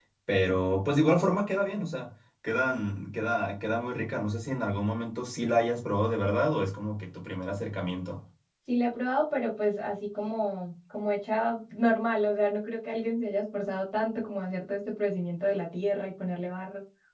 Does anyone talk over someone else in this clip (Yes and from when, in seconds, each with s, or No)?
No